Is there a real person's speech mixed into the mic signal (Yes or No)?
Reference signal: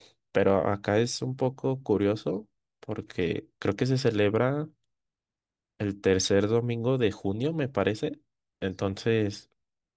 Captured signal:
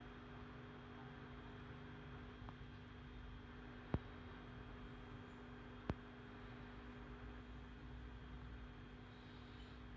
No